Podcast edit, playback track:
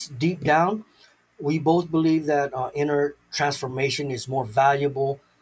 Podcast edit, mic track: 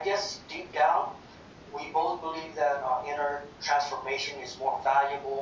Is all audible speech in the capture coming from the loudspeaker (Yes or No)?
Yes